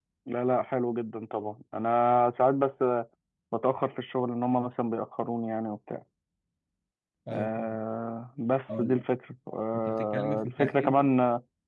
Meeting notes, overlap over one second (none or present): present